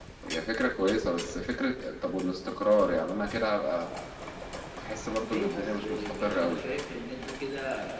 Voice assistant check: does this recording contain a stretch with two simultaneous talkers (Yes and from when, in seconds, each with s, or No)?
Yes, from 5.2 s